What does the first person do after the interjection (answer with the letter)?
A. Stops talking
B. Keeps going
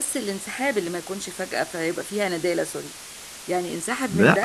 A